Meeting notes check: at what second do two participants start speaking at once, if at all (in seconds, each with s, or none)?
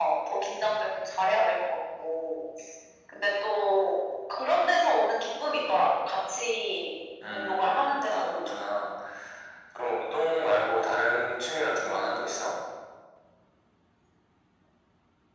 7.3 s